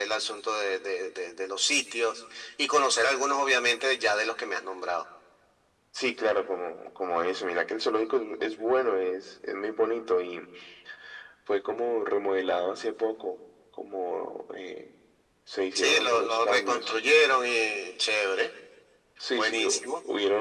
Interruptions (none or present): present